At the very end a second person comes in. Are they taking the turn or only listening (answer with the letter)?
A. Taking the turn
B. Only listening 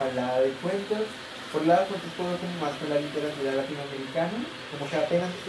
B